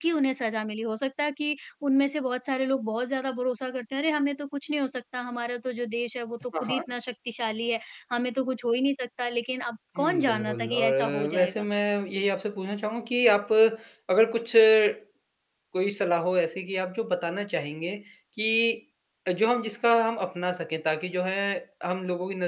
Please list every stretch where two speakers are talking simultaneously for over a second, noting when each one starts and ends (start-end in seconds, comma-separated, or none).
10.0-11.7